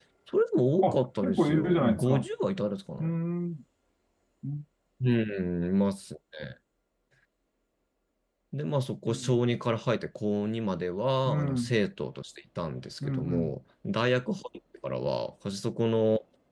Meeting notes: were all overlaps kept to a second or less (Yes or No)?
No